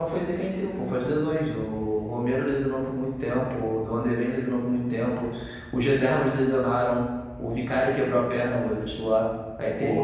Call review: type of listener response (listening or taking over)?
listening